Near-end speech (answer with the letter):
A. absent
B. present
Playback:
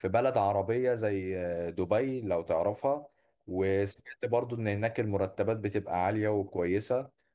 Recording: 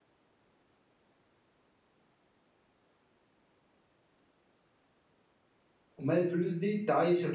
B